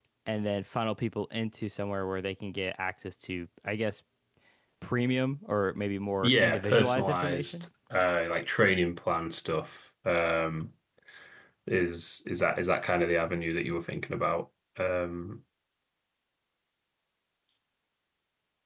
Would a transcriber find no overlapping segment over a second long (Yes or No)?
No